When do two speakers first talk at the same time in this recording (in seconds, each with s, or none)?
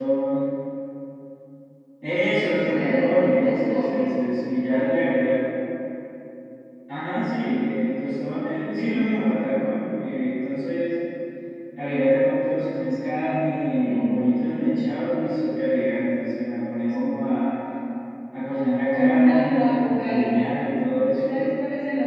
2.5 s